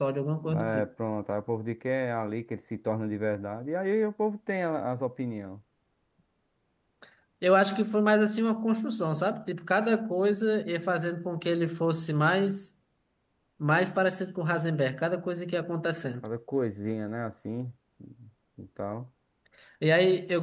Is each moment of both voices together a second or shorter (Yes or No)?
Yes